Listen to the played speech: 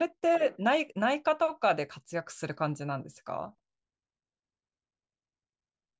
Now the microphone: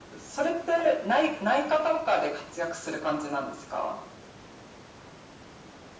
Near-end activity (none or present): none